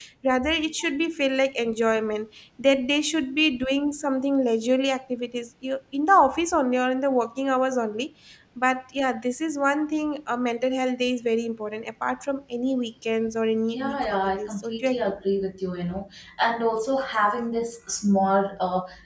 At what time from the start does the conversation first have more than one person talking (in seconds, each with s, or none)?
13.7 s